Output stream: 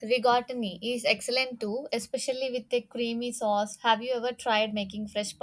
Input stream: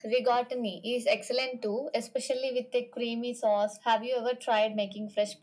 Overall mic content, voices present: echo only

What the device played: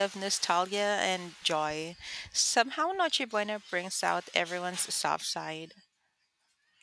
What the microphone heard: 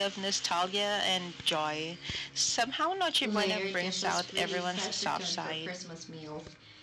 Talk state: both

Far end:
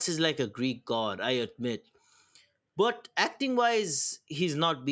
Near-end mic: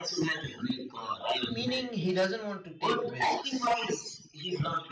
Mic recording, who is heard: both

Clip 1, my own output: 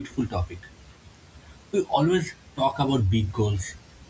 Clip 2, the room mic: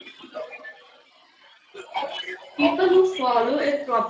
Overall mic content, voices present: both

